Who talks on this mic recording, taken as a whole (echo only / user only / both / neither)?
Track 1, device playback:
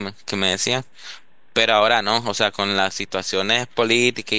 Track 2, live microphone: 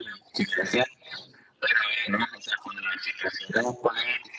echo only